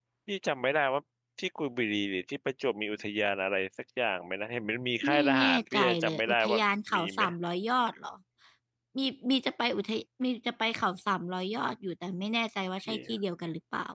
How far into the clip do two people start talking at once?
5.0 s

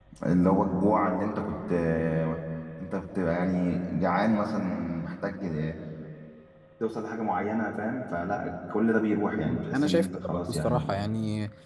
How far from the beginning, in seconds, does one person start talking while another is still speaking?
9.7 s

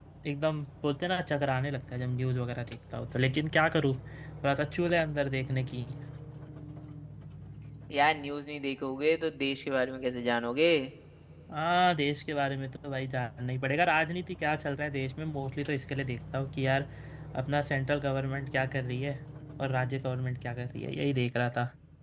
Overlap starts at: none

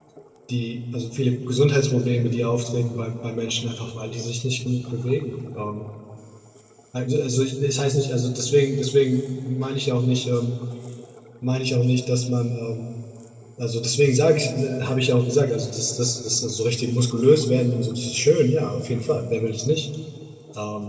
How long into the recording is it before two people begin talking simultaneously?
none

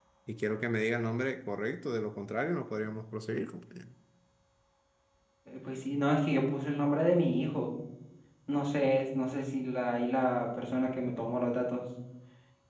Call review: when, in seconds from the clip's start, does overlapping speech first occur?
none

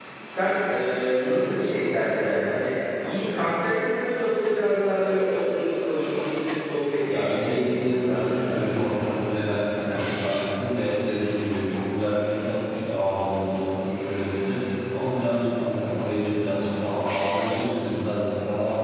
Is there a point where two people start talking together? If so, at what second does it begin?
7.1 s

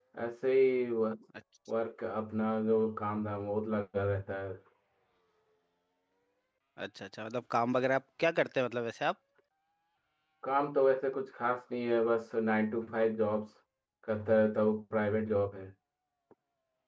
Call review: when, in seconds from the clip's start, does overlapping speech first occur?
none

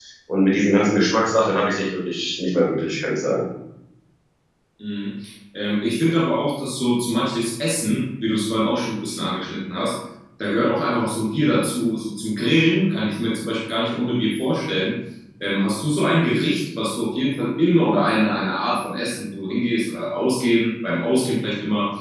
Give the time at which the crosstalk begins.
none

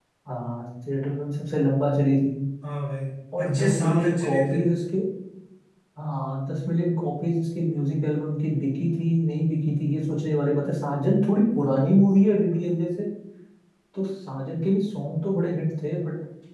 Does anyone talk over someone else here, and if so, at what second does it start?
3.4 s

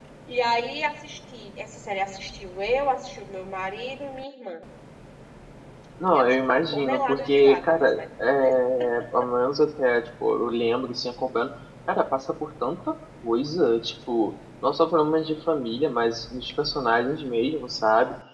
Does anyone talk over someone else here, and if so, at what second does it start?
6.1 s

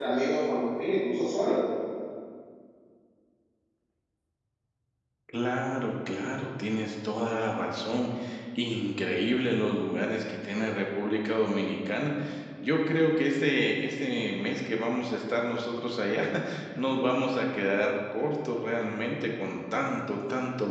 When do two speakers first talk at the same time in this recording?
none

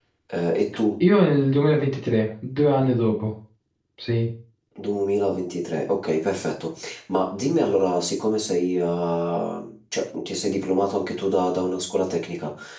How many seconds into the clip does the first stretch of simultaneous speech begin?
none

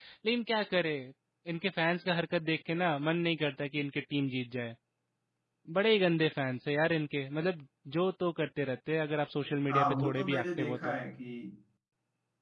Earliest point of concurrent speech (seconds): 9.7 s

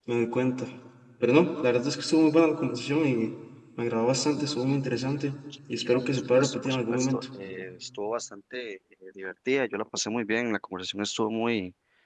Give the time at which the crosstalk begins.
5.8 s

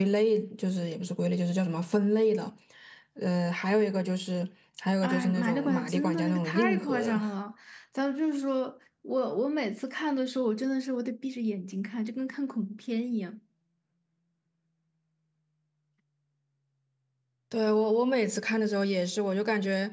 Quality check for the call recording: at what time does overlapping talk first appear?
5.0 s

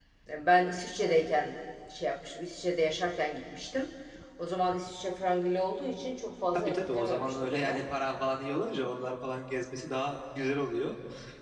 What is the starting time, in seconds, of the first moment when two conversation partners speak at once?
6.5 s

